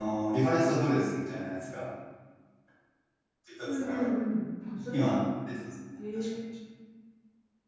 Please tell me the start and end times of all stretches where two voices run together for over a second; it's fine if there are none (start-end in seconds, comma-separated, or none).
none